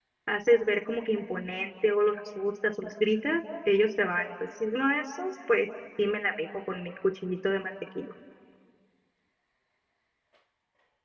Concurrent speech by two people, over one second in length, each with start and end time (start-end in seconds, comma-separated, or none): none